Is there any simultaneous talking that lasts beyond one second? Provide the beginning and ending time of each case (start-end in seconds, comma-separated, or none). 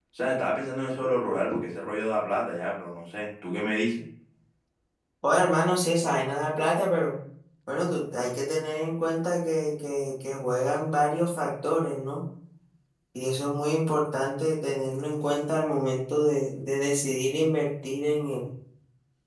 none